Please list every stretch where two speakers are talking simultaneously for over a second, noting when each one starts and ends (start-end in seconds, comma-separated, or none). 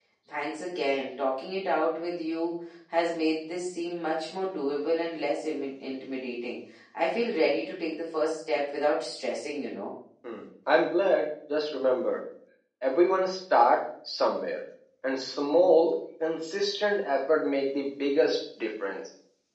none